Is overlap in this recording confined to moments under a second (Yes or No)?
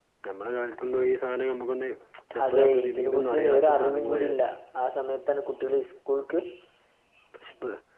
No